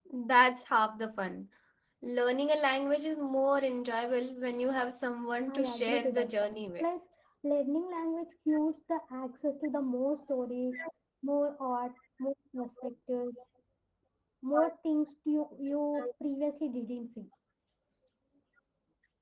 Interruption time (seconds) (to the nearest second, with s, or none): 5 s